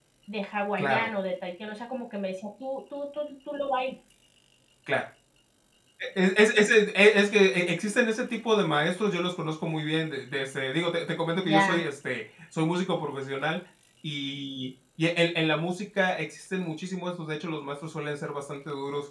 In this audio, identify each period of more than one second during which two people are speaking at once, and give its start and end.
none

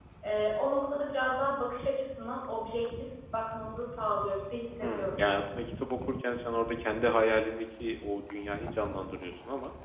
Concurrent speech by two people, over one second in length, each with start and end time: none

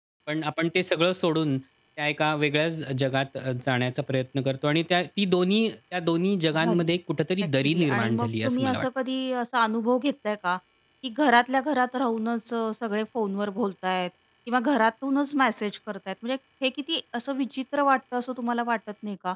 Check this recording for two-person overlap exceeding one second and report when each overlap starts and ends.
7.6-8.9

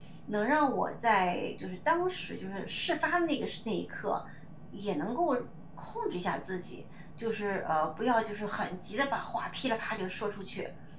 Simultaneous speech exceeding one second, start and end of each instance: none

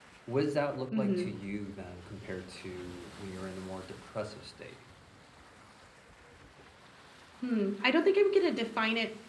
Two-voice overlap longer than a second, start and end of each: none

